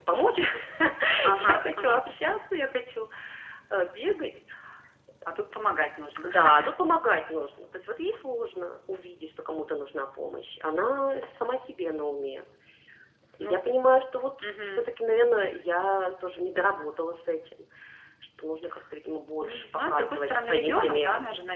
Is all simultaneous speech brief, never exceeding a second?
No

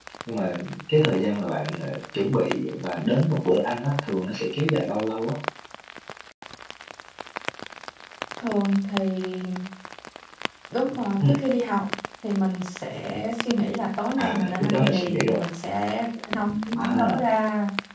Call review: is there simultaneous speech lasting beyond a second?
Yes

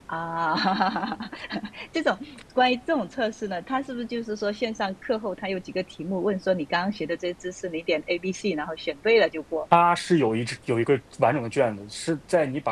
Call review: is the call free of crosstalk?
Yes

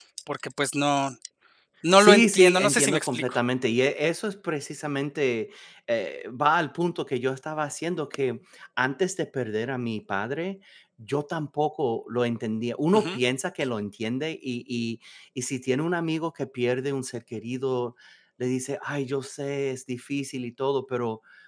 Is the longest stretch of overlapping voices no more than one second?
No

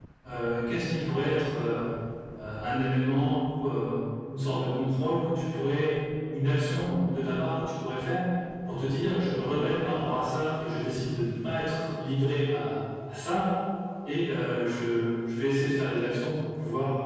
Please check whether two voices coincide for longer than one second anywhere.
No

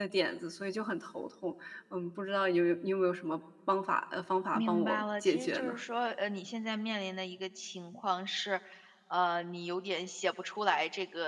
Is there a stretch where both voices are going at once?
Yes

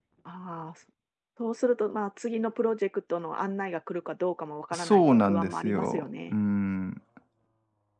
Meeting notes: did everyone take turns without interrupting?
No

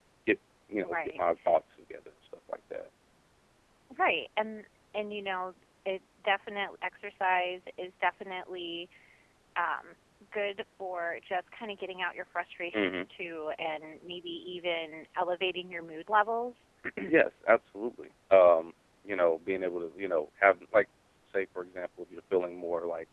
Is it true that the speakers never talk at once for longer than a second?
Yes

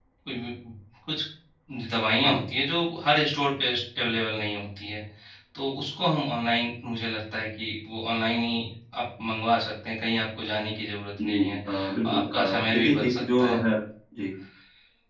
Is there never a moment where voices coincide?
No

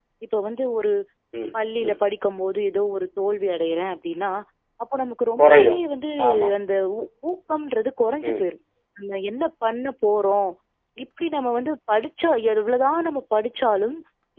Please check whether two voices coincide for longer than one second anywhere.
No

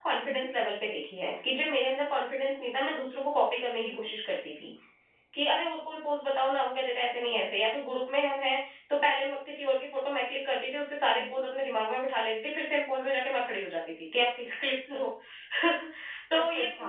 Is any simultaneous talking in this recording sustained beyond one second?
No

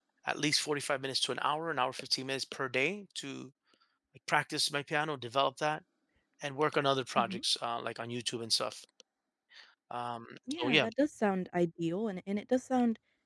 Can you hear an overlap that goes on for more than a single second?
No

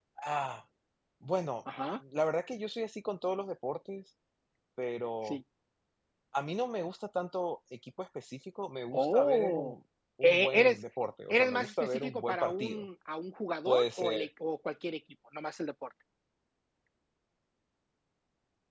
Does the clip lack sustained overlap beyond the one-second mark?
No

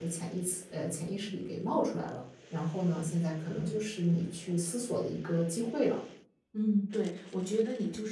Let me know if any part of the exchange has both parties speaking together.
No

